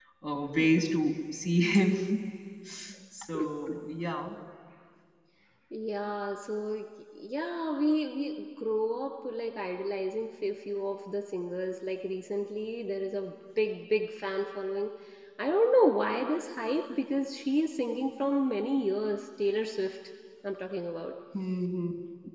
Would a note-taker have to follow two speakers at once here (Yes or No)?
No